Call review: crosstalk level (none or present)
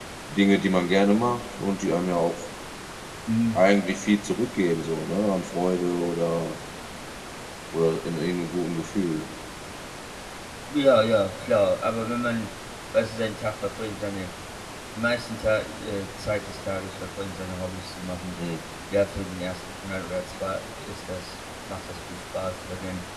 none